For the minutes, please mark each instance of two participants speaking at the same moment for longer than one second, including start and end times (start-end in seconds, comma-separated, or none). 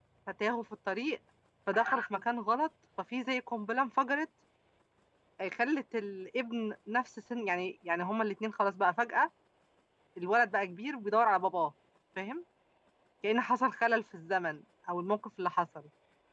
none